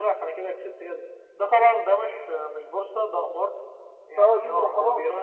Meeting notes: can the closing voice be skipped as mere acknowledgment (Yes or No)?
Yes